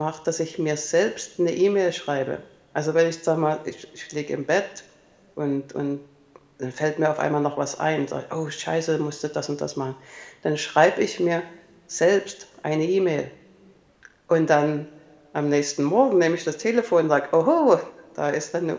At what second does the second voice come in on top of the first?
none

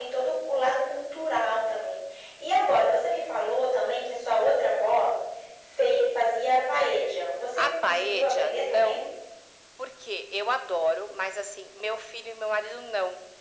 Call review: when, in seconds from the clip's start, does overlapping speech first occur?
7.6 s

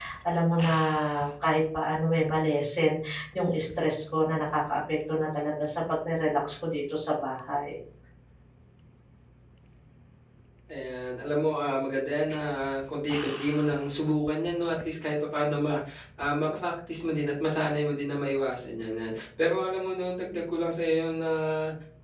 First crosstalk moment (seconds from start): none

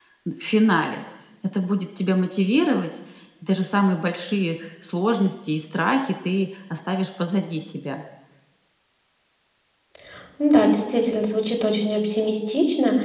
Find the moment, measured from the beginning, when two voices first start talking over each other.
none

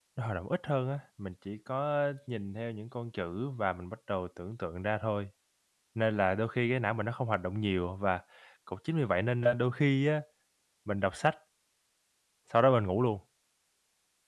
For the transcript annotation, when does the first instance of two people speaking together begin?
none

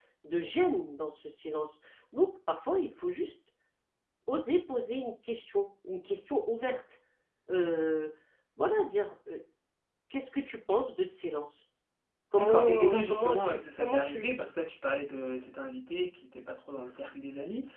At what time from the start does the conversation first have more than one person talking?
12.4 s

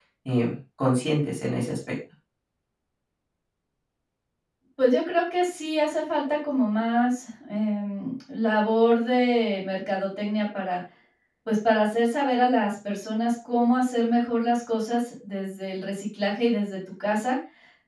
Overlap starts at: none

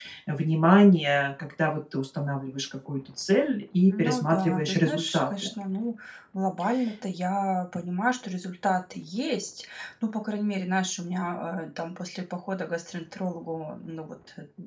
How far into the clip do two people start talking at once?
3.9 s

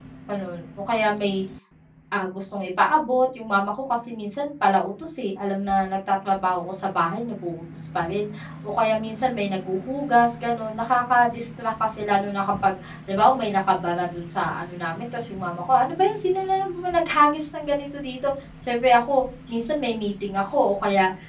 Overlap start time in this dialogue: none

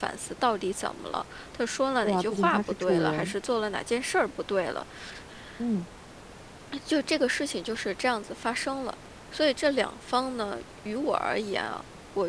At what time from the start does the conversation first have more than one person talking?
2.0 s

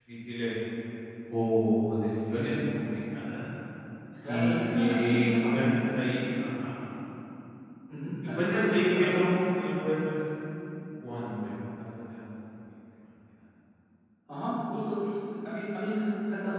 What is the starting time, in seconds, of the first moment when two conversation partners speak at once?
4.2 s

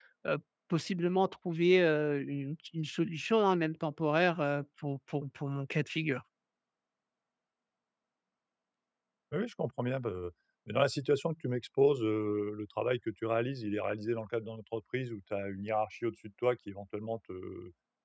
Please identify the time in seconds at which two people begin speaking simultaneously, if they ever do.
none

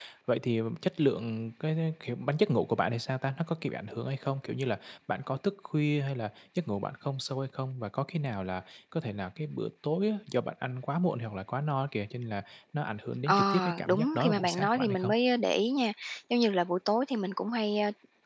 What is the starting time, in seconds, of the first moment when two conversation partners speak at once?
13.3 s

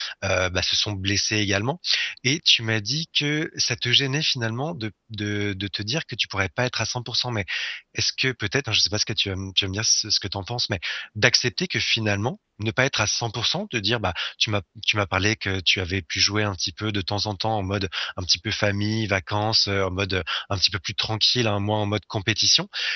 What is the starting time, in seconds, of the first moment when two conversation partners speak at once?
none

